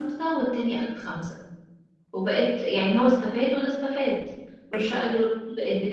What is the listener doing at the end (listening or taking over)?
listening